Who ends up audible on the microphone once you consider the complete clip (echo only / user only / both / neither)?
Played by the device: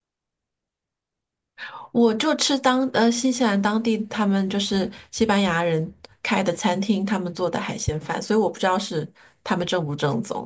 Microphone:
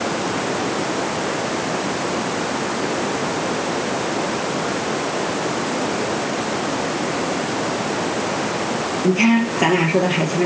user only